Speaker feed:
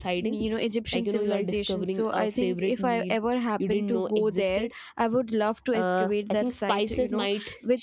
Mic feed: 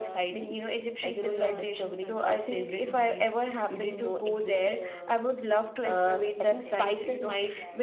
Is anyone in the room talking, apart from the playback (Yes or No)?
Yes